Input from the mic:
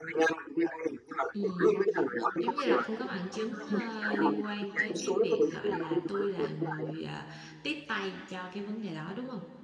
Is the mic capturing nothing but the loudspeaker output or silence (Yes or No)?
No